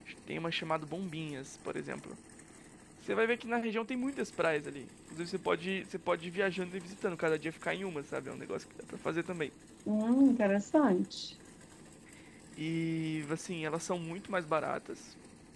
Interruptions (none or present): none